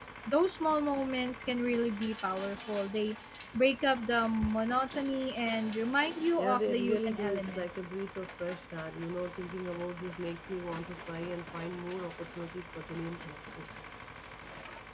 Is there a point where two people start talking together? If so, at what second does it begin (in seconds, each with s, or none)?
6.3 s